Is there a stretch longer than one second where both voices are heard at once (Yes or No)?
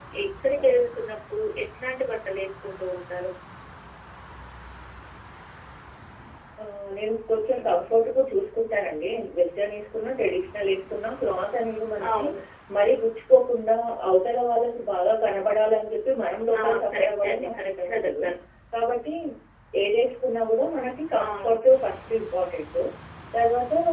Yes